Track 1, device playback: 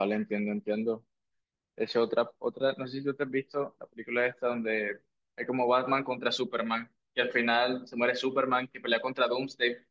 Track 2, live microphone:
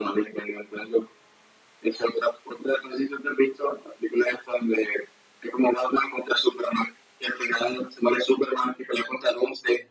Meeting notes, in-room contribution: none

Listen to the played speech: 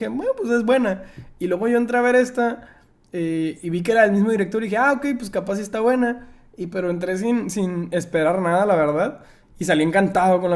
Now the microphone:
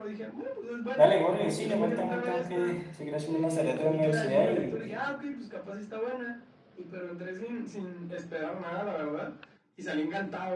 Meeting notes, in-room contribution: present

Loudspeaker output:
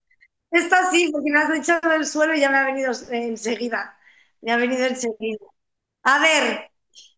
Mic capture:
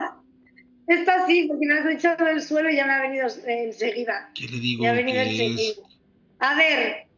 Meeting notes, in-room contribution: present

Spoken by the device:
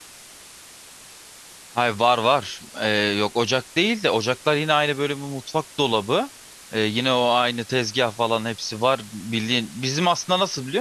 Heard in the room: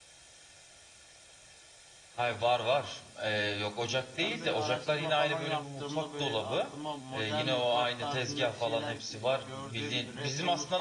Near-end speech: present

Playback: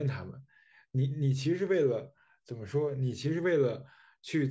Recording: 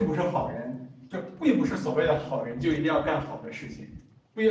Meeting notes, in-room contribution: present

